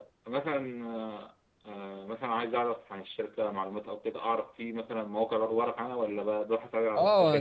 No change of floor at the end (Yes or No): No